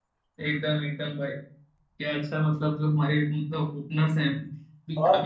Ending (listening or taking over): listening